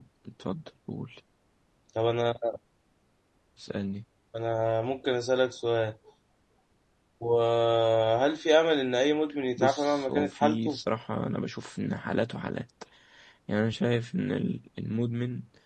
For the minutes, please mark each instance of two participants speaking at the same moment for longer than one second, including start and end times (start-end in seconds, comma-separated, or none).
9.6-10.8